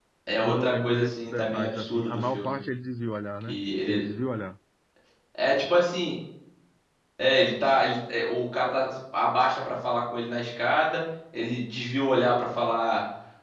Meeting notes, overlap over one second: present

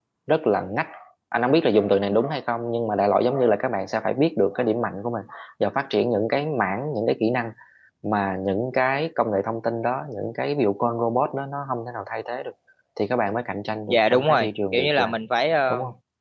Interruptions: present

